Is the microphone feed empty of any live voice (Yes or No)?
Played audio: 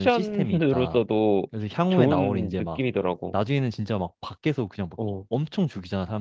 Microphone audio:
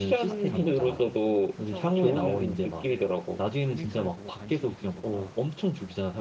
No